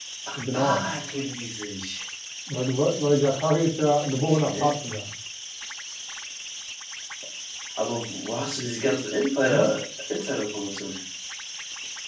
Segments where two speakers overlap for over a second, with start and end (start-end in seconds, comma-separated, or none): none